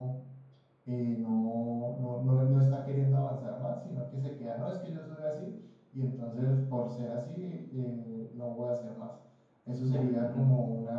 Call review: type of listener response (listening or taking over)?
listening